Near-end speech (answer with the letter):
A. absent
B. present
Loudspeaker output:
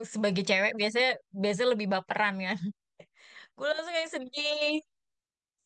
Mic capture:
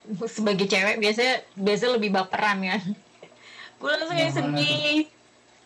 B